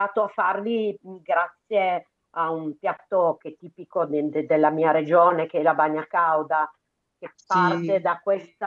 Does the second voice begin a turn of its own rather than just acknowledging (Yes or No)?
No